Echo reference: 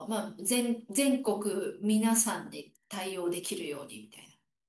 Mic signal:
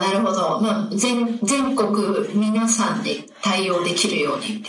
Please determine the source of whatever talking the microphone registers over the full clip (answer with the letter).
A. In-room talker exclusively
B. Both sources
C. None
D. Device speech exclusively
D